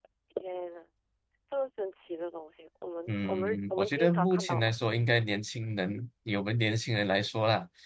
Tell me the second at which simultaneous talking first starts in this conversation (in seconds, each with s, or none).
3.1 s